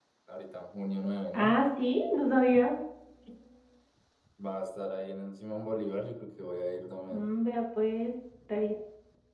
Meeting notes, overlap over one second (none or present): none